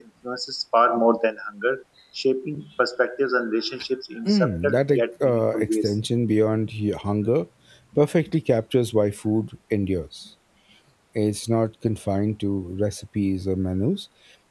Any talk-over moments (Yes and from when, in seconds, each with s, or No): Yes, from 4.2 s